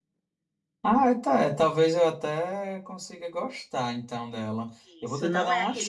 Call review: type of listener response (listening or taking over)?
taking over